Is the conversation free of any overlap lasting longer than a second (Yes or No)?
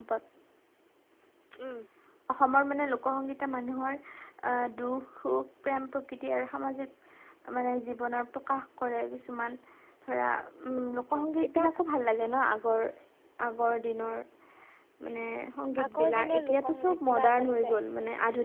No